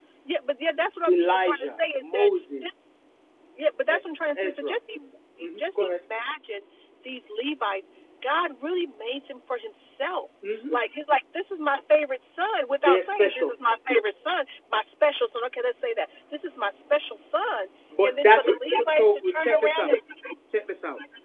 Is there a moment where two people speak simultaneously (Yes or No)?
Yes